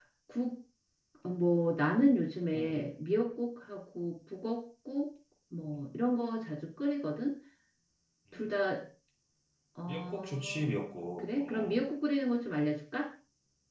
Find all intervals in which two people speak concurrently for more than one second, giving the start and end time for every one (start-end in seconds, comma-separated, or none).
9.9-11.8